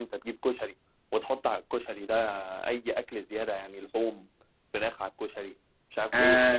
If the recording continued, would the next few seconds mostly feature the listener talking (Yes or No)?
Yes